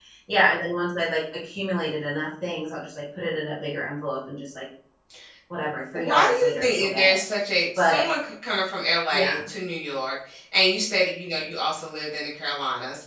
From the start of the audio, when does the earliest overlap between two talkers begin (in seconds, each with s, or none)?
5.9 s